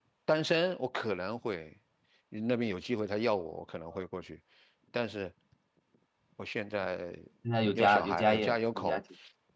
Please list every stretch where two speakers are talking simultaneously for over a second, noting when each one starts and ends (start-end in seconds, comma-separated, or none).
7.8-9.0